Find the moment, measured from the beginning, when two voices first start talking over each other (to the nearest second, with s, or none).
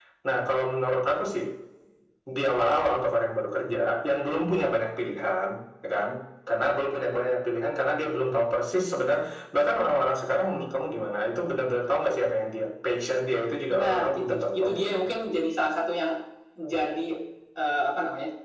14 s